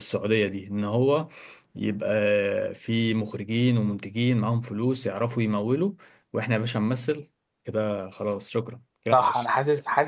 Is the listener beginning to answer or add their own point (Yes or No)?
Yes